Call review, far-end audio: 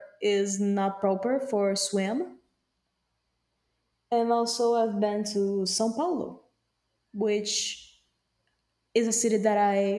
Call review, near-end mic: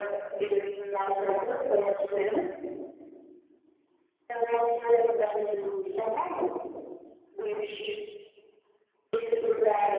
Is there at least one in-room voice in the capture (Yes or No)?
No